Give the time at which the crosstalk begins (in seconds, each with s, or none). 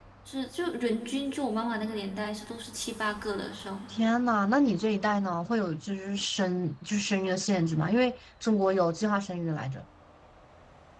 none